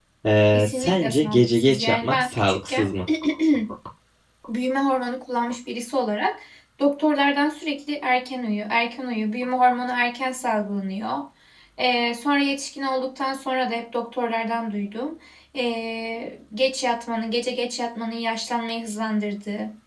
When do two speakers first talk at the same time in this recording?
0.5 s

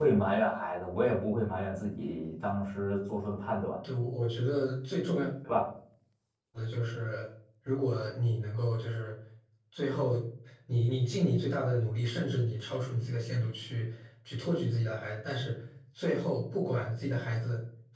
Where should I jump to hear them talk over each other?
none

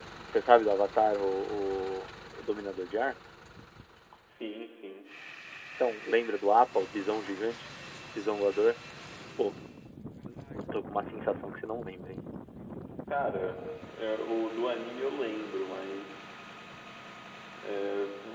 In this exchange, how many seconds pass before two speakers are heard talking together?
none

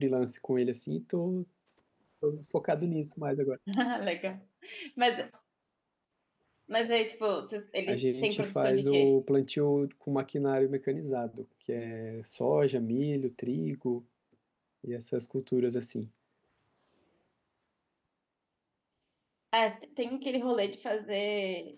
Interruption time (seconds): 7.9 s

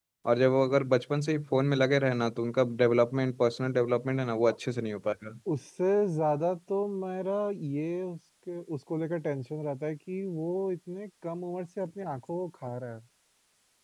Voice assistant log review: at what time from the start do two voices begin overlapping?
none

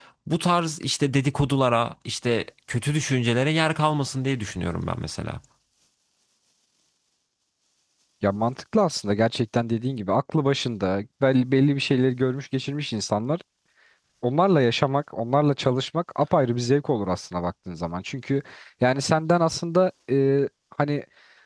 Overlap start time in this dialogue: none

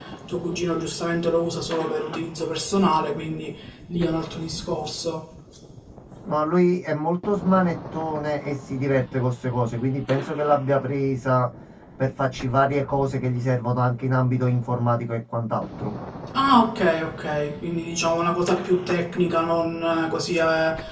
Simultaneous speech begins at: none

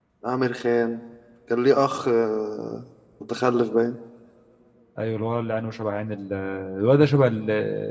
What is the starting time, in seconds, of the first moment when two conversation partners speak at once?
none

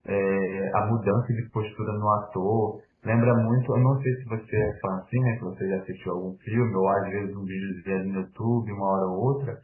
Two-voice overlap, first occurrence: none

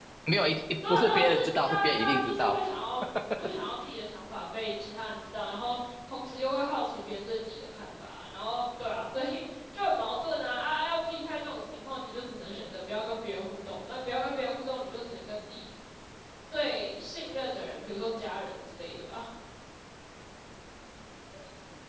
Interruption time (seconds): 0.9 s

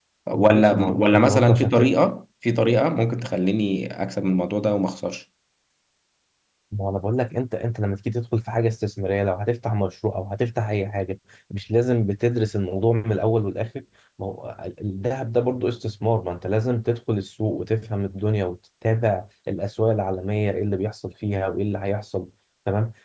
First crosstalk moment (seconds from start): 0.5 s

